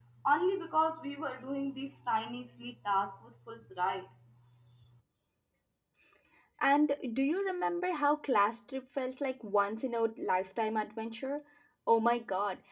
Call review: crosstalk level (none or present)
none